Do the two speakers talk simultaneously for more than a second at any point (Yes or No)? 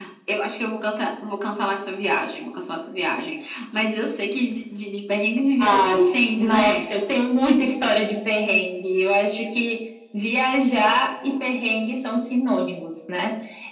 Yes